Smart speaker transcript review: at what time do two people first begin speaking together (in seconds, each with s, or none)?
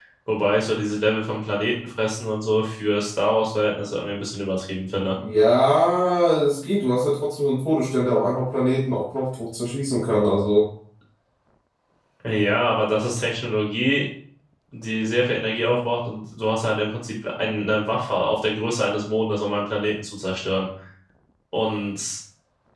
none